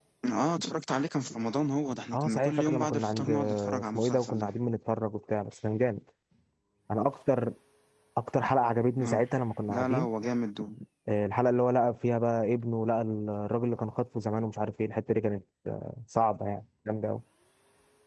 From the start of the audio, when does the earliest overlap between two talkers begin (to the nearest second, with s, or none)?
2 s